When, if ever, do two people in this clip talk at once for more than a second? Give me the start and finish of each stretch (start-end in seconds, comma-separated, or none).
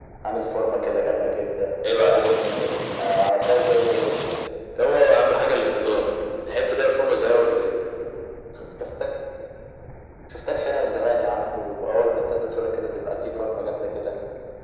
none